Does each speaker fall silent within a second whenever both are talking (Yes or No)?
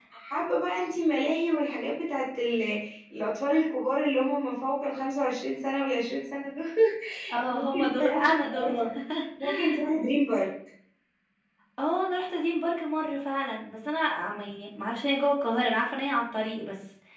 No